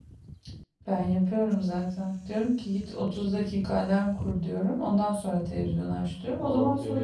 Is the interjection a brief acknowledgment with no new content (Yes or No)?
No